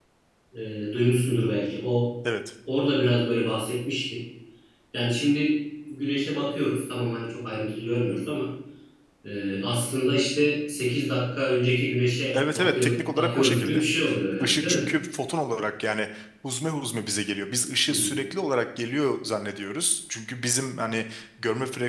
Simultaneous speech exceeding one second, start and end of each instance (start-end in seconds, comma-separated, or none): 12.3-13.8